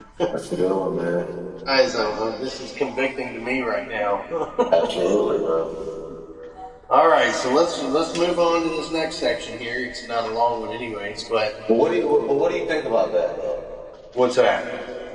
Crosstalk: none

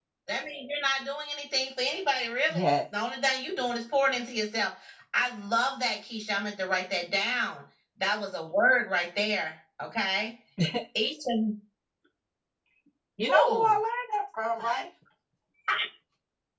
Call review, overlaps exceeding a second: none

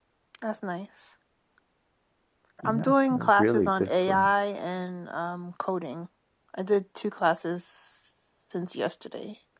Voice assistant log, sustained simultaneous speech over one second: present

